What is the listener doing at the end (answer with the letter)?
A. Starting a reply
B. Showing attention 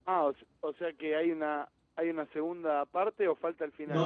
A